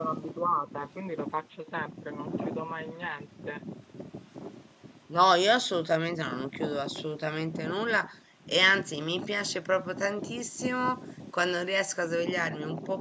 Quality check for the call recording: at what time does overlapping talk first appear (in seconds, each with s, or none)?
none